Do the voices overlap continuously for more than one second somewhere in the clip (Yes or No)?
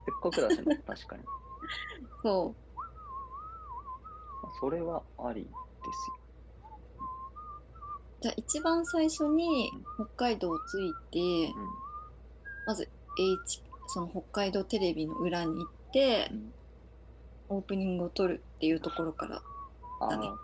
No